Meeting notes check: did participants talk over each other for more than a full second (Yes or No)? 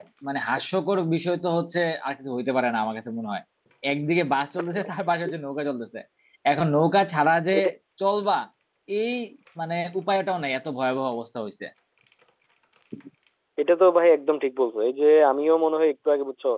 No